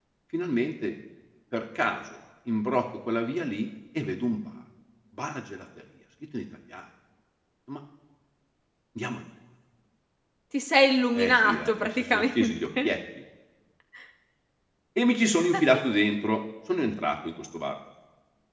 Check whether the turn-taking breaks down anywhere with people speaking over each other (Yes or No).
Yes